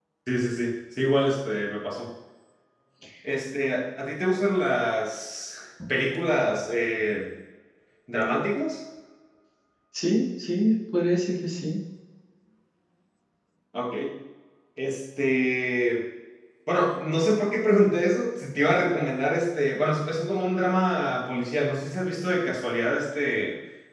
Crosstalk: none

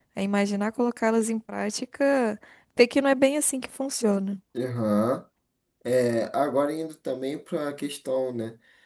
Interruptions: none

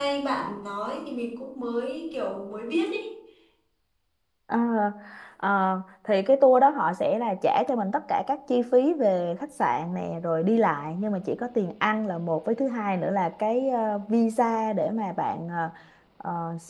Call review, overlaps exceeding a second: none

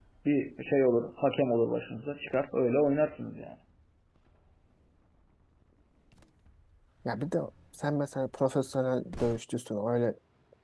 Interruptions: none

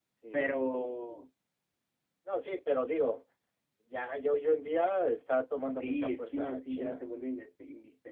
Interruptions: present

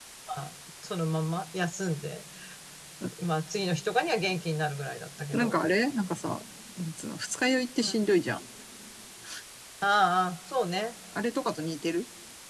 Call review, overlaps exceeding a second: none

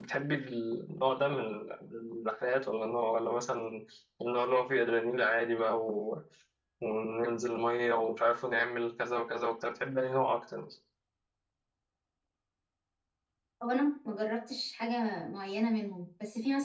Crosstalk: none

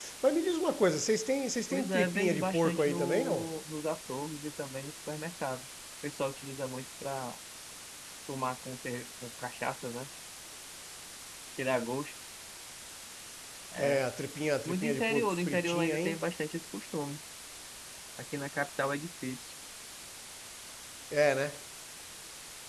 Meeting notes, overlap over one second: present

